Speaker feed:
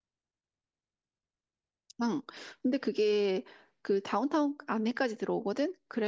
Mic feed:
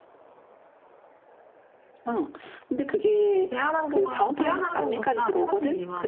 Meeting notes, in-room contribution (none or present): present